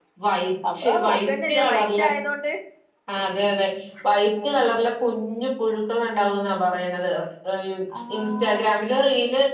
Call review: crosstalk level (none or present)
present